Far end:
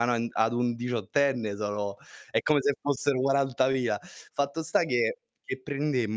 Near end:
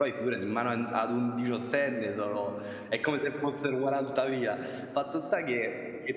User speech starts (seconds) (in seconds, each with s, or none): none